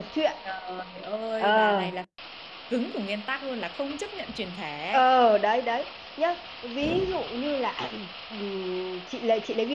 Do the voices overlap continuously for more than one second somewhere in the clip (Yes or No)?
No